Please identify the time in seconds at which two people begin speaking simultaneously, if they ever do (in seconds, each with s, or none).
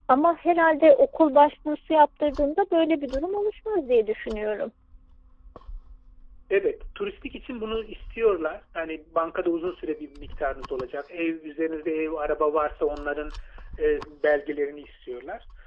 none